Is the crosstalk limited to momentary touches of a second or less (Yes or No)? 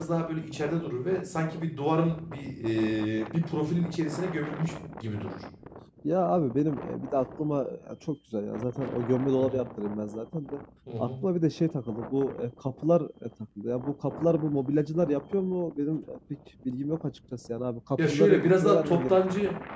No